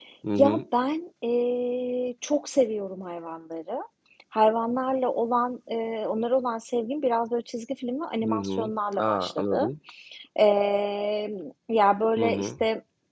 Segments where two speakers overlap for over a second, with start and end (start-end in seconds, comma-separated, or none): 8.2-9.7